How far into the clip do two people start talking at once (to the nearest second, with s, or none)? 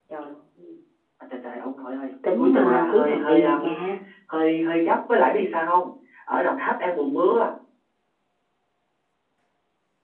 2 s